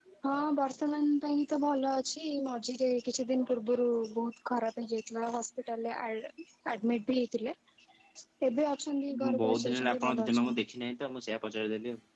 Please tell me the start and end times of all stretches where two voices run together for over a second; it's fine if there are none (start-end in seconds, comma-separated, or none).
9.3-10.6